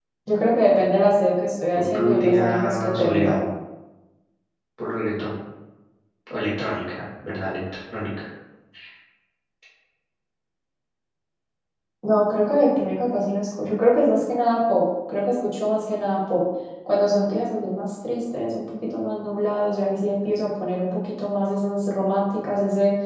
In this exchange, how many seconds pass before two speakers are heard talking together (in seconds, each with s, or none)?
1.7 s